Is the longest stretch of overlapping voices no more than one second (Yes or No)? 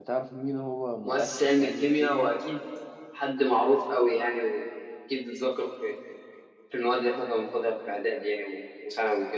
No